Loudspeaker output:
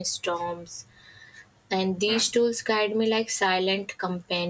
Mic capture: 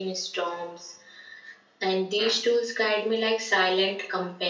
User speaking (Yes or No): No